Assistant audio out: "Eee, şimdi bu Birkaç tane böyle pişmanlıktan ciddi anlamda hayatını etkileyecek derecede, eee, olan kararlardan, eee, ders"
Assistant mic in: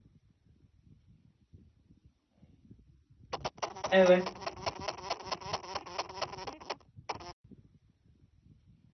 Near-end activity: present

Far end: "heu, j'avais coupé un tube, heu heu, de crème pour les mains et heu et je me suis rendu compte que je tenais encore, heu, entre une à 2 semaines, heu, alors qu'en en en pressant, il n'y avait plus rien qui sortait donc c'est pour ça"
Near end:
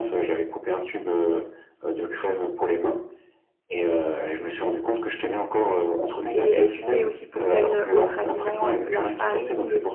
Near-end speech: present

